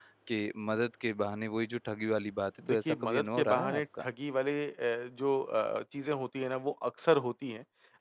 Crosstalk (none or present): present